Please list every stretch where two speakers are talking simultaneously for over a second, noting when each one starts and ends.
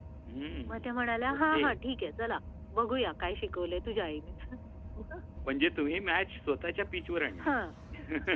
none

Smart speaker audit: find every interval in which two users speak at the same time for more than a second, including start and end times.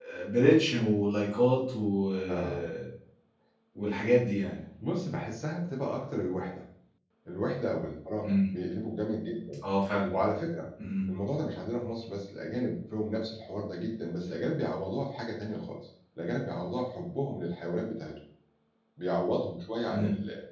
none

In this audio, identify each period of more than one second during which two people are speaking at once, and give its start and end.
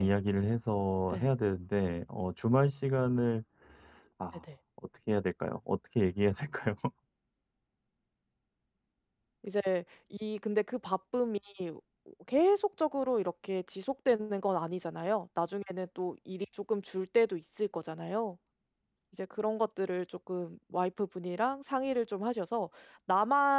none

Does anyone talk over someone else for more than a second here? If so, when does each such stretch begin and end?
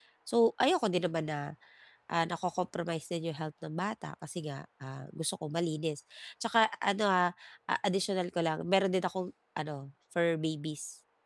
none

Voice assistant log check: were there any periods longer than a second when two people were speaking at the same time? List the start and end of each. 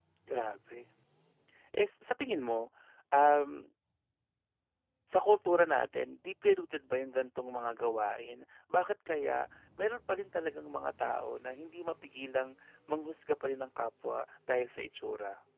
none

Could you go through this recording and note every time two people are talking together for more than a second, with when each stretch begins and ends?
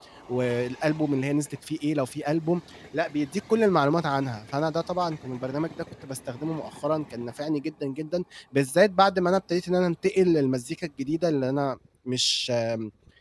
none

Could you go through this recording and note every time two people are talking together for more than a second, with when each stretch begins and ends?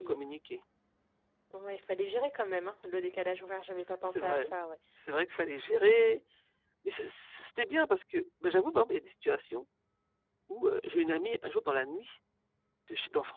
none

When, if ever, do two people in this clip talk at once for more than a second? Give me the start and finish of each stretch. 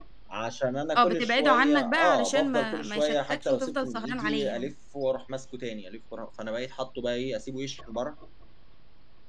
1.0-4.7

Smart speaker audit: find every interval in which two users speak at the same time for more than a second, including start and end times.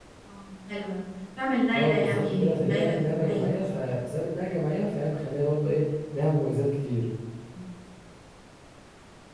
1.7-4.0

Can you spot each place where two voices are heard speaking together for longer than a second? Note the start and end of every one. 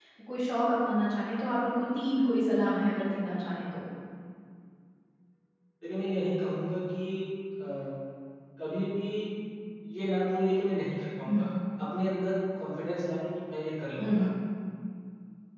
none

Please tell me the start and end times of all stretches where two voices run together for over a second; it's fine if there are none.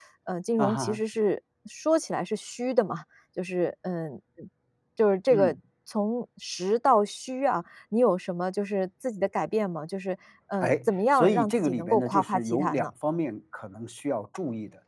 10.6-12.9

